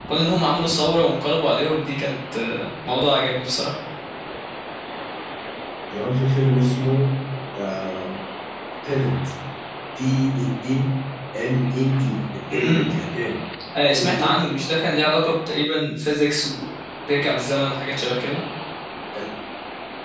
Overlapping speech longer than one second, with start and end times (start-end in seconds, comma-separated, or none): none